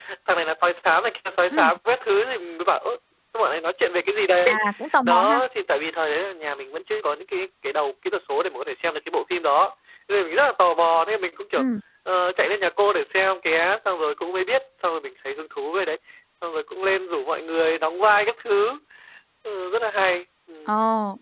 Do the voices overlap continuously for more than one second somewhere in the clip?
No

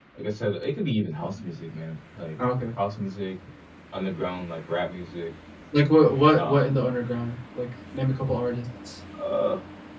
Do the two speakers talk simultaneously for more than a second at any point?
No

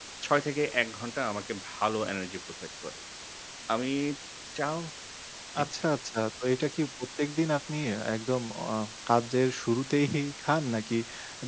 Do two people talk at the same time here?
No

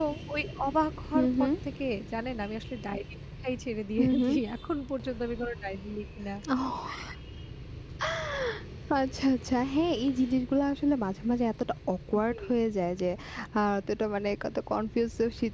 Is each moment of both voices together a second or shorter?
Yes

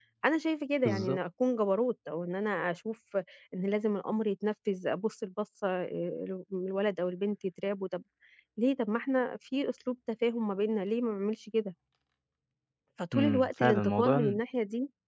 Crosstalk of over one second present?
Yes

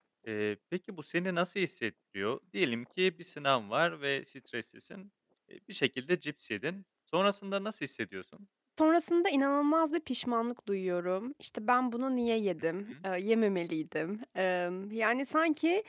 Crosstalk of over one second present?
No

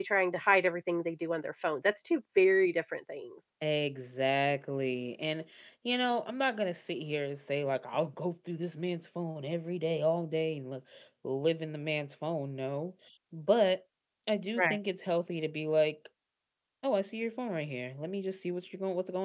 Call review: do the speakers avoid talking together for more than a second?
Yes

